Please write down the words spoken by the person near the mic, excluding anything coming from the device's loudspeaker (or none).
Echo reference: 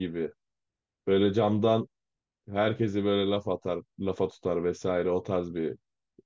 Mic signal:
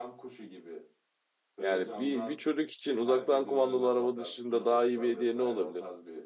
Yani bir, bir çocuk için uzaktan kumandalı araba dışında daha iyi bir hediye ne olabilir?